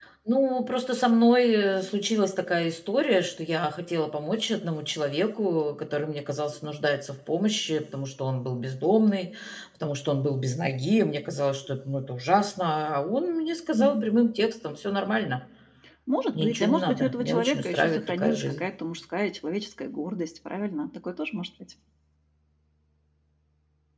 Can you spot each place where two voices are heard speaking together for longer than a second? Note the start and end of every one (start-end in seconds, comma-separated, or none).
16.3-18.7